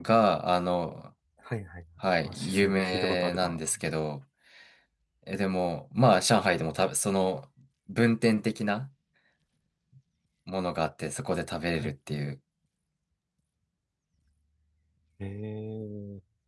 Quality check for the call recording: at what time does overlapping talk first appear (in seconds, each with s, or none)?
2.2 s